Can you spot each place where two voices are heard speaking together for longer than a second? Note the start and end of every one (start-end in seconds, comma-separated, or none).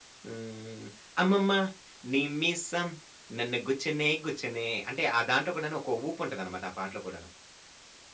none